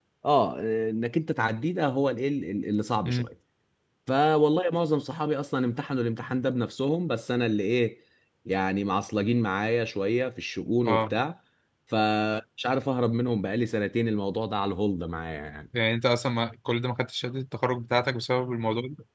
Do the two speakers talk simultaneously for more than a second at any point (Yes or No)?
No